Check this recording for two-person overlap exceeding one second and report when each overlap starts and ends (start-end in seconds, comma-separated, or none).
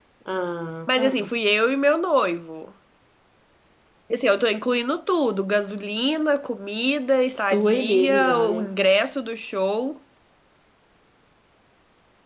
7.3-8.7